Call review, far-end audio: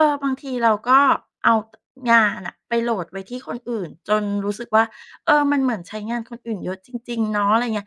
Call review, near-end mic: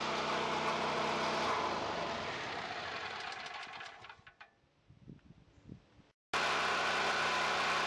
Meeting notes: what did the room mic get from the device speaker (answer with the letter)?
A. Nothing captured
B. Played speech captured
A